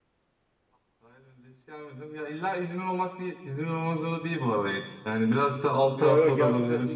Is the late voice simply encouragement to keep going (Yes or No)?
No